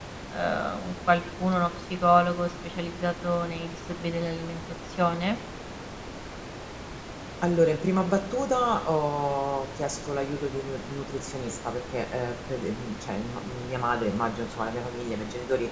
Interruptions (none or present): none